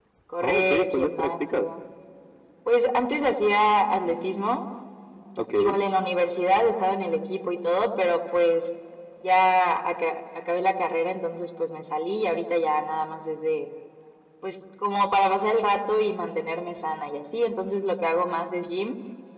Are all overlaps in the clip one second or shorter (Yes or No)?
No